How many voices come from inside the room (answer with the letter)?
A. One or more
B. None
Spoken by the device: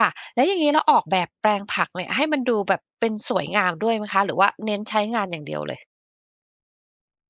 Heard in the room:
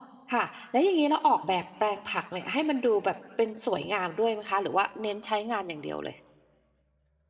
B